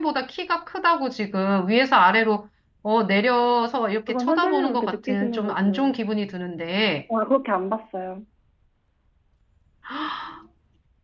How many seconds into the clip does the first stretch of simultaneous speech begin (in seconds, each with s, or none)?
4.1 s